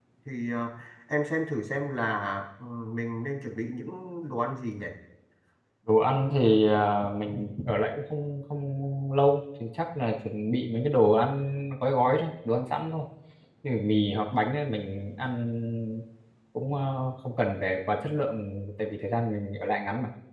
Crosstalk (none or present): none